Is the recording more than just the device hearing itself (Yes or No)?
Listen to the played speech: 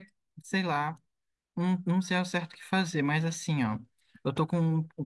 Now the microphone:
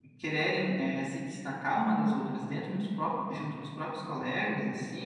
Yes